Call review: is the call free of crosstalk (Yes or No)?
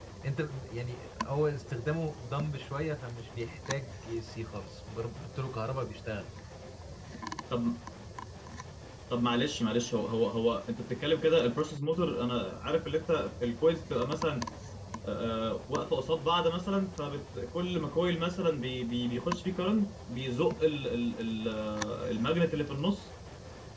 Yes